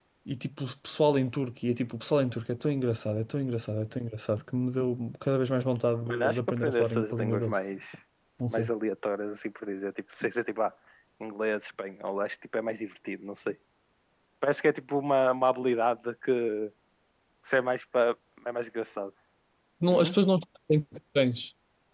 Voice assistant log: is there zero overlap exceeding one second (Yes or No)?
No